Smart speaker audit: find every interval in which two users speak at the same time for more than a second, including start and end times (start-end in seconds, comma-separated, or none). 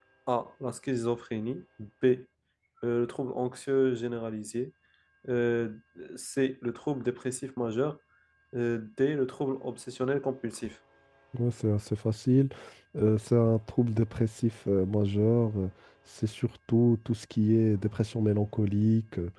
none